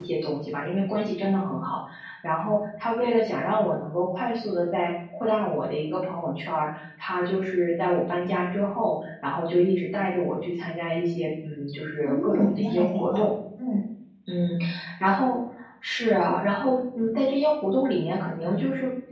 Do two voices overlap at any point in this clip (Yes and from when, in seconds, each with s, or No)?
Yes, from 12.0 s